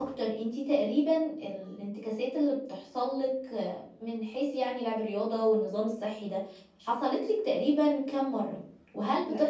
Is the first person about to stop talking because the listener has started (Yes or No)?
No